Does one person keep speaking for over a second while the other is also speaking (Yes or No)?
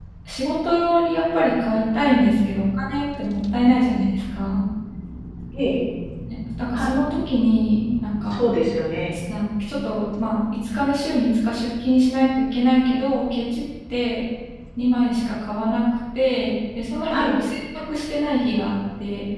No